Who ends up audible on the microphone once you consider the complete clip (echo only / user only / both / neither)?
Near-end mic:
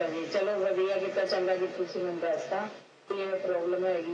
echo only